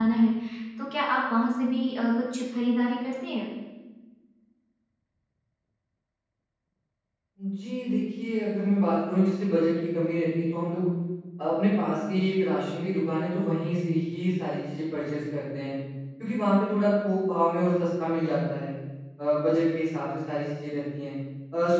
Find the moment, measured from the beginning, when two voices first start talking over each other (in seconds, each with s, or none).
none